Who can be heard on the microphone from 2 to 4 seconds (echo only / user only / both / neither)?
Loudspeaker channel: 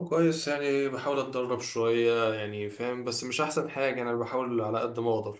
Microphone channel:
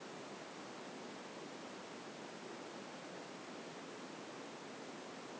neither